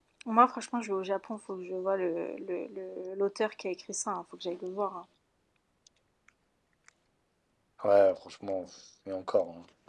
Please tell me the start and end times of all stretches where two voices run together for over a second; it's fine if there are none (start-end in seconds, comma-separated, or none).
none